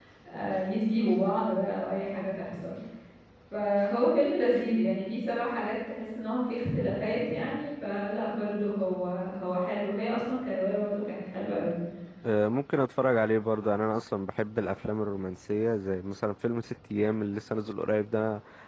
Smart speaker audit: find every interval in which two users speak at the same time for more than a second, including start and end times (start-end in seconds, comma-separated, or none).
none